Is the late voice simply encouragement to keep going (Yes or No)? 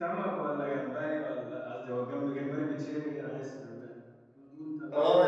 No